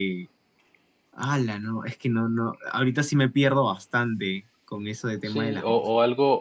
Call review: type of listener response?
taking over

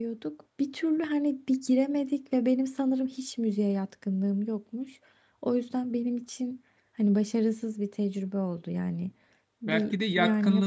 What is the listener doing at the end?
taking over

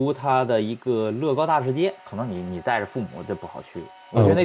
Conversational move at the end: taking over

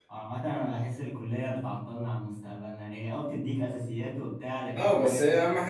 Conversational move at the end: taking over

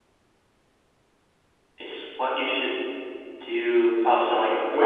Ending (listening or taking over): taking over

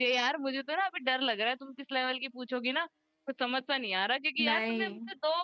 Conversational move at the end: listening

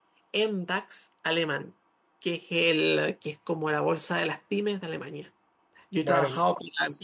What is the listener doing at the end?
listening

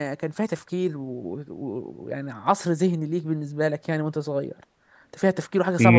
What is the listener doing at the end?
taking over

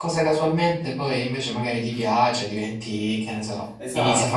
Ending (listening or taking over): taking over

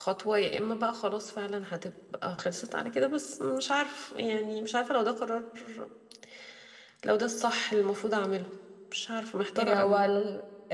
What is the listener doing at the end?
taking over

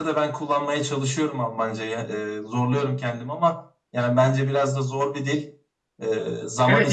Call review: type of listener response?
taking over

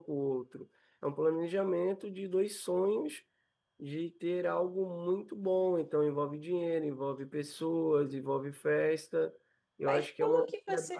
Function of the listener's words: taking over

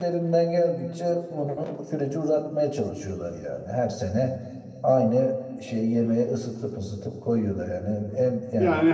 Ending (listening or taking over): taking over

